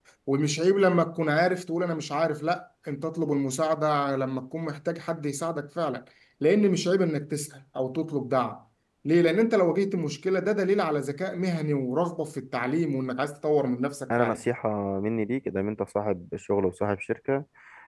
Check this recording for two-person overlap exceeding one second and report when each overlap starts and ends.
none

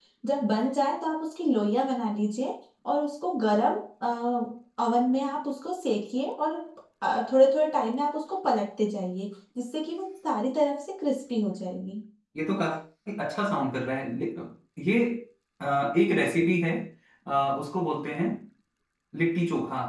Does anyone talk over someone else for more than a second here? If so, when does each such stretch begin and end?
none

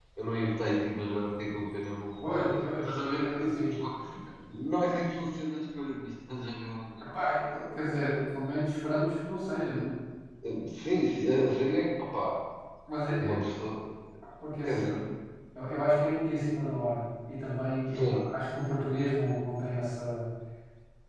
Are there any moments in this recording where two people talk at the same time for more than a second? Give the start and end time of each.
2.3-3.7

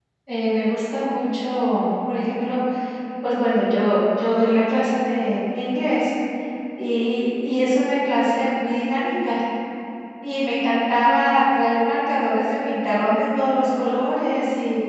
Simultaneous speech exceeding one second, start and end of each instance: none

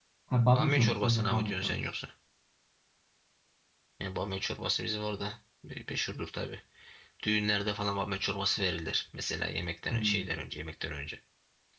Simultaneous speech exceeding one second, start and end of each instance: 0.6-1.8

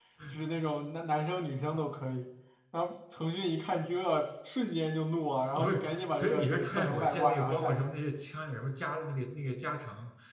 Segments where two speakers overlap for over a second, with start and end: 5.6-7.9

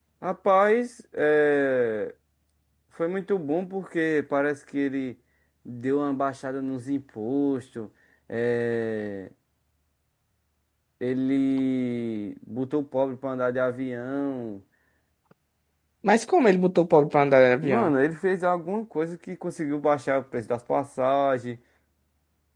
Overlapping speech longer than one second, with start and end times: none

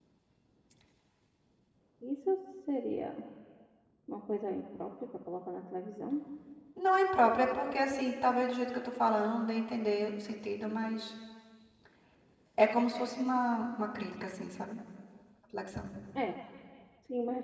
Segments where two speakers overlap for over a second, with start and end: none

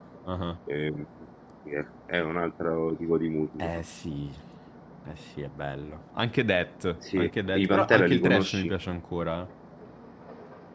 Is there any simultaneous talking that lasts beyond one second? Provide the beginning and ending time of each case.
7.2-8.7

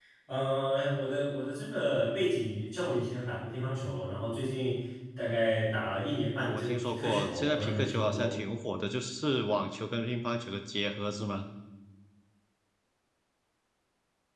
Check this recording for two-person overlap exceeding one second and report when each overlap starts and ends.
6.4-8.3

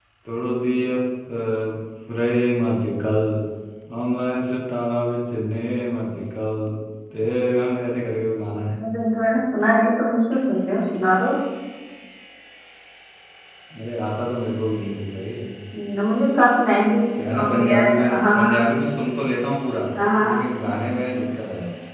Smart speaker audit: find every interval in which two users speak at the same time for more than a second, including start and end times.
17.3-18.5

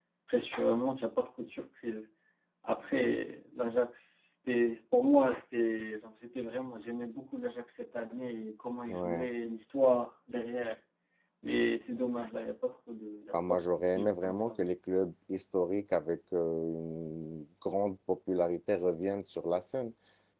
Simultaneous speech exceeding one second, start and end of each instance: 13.3-14.6

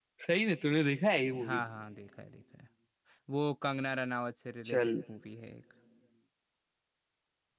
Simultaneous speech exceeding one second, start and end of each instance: none

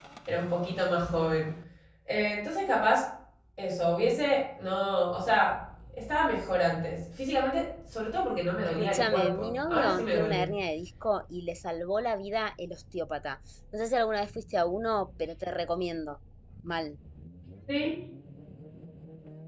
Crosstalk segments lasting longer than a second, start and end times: 8.6-10.4

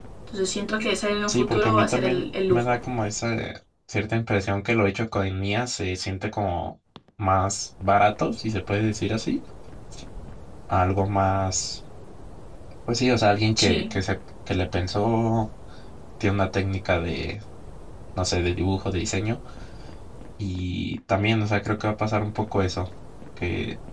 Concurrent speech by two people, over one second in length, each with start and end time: 1.3-2.7

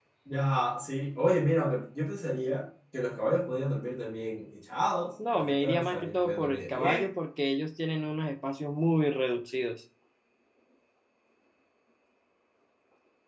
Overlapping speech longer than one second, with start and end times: 5.3-7.0

